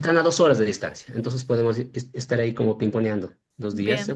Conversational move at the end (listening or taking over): listening